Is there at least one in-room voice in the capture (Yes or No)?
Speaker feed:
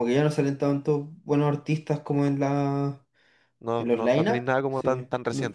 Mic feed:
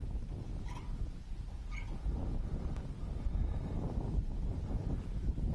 No